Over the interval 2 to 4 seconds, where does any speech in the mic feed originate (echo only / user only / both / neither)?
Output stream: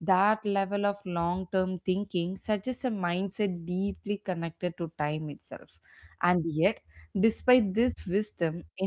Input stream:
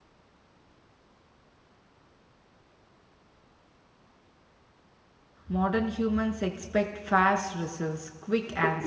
neither